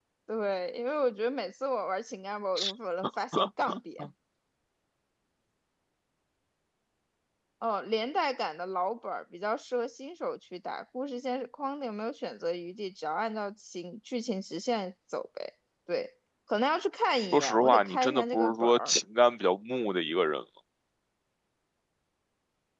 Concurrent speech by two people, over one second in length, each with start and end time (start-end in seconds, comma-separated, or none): 17.3-18.9